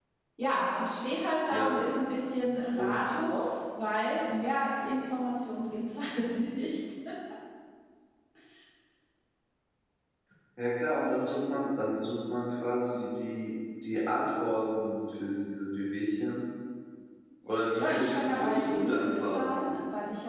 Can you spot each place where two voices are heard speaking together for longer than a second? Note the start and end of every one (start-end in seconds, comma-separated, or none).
17.8-19.6